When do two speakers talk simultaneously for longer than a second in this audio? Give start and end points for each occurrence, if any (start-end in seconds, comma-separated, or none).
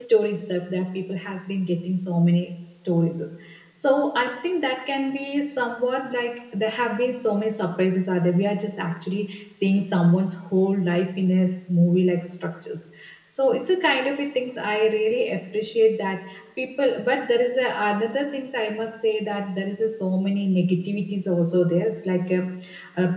none